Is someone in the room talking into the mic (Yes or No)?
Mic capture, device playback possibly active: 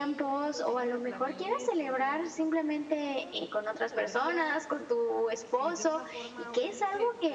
Yes